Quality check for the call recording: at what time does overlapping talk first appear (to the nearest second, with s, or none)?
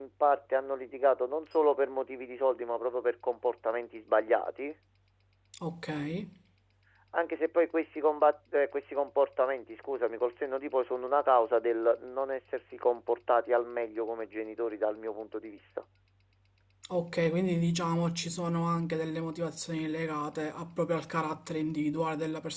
none